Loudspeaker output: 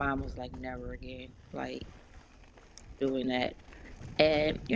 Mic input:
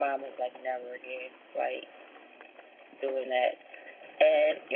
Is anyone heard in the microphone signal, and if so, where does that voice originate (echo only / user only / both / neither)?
echo only